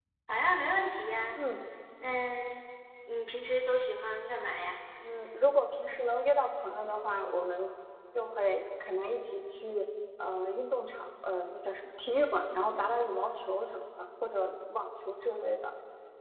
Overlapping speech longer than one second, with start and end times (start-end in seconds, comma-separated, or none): none